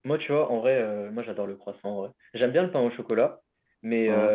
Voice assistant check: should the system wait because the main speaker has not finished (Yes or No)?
Yes